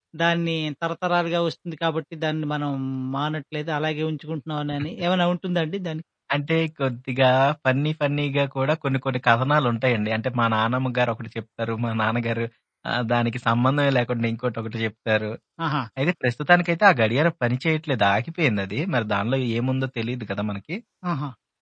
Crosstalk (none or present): none